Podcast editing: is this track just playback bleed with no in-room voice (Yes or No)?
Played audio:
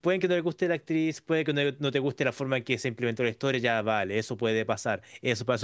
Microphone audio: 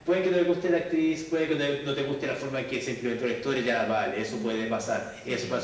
No